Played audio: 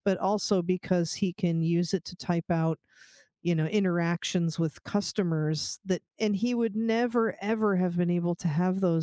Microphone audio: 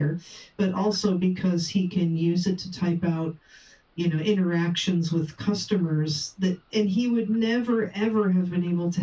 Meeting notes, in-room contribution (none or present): none